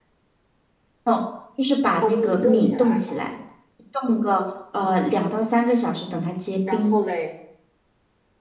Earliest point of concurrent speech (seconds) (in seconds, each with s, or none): 2.0 s